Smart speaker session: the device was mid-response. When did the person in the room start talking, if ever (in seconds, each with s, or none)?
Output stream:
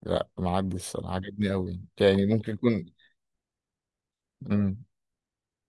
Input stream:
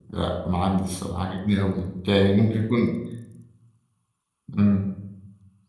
none